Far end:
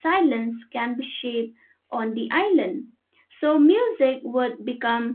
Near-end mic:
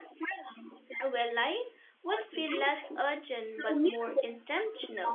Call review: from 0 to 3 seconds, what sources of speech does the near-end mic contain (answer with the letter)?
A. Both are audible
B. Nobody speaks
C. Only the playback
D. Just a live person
A